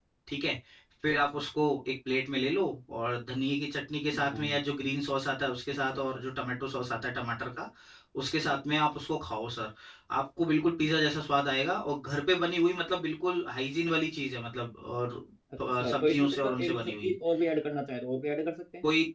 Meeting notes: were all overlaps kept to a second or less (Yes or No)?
No